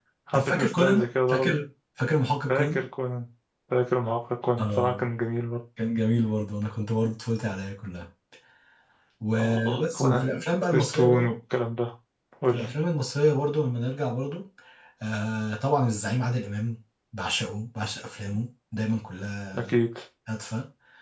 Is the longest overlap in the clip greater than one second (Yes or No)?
Yes